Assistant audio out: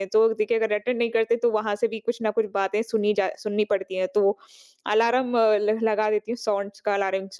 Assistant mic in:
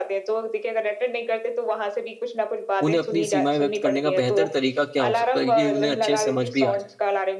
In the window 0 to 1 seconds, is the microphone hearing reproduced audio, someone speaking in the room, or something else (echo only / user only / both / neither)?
echo only